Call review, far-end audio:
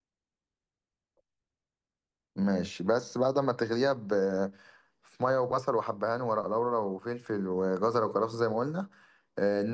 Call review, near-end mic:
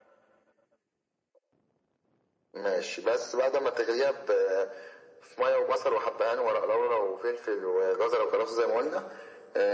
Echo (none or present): present